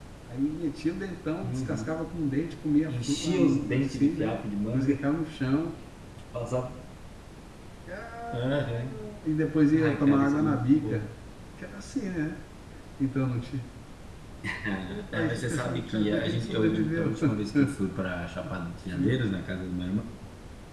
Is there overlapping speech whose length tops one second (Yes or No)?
Yes